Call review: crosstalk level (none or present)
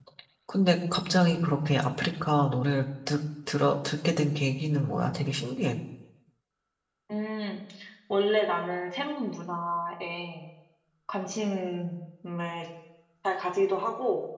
none